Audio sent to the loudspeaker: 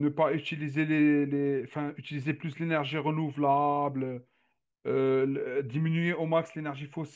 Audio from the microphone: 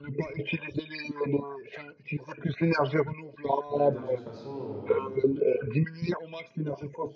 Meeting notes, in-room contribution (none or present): present